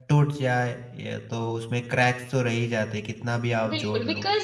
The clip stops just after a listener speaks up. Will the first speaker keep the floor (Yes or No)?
No